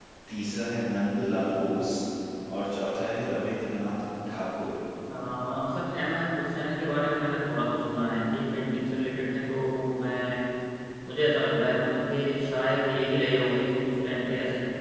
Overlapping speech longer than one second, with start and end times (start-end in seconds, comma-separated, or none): none